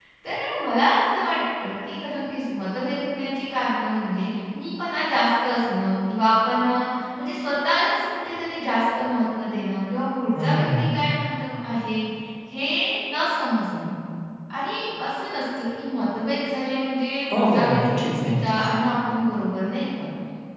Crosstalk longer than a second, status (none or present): present